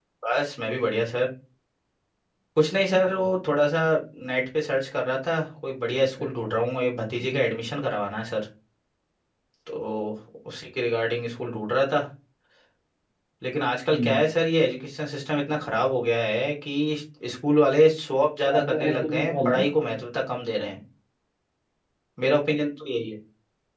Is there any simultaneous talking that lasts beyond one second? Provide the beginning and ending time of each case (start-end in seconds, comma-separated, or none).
18.4-19.7